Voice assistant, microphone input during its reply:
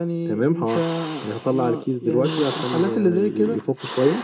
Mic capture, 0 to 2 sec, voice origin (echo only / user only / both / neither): echo only